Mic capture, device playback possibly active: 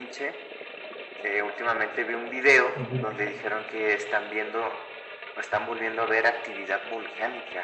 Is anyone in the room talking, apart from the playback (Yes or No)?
Yes